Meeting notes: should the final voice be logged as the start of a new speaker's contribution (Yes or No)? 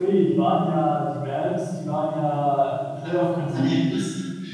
No